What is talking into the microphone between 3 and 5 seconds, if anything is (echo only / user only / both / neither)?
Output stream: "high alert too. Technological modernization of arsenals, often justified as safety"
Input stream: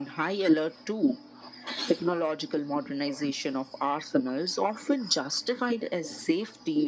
echo only